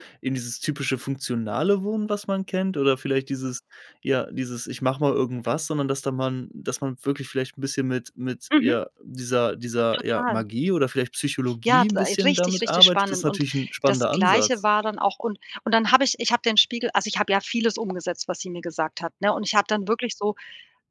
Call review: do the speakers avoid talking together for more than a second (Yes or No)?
No